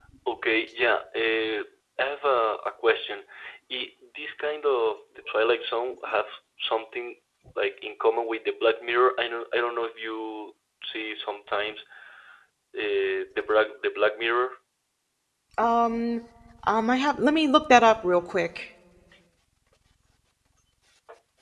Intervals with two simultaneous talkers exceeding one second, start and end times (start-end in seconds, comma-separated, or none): none